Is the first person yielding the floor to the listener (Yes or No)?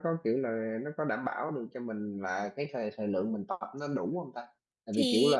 No